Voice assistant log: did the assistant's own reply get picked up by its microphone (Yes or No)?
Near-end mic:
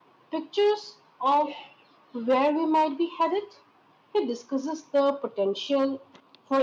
Yes